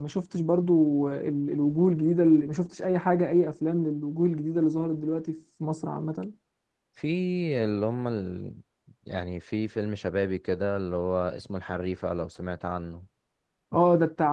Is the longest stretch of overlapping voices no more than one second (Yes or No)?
Yes